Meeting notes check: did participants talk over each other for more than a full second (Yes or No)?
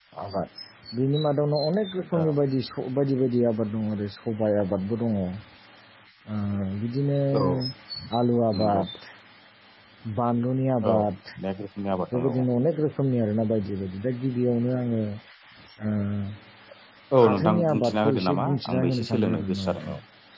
Yes